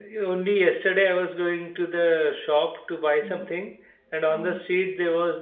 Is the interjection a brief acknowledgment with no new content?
Yes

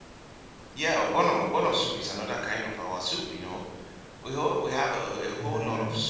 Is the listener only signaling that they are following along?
Yes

